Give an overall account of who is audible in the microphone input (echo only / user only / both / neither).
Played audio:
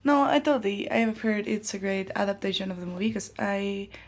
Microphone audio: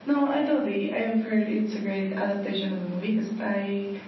echo only